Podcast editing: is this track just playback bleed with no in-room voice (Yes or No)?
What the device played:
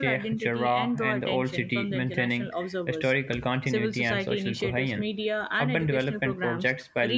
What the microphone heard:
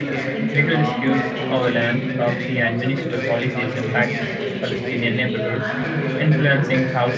No